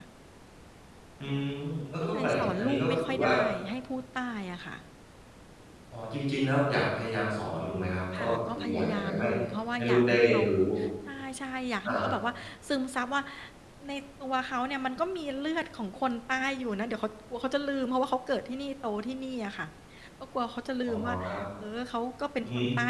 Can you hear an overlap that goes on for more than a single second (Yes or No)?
Yes